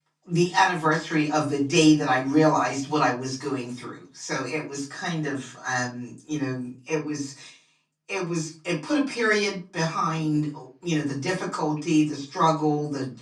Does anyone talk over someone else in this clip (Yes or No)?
No